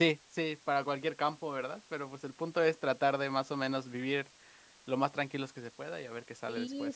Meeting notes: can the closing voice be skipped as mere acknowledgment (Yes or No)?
No